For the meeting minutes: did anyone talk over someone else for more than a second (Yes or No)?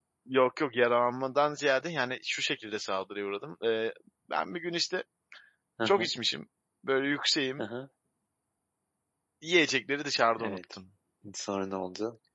No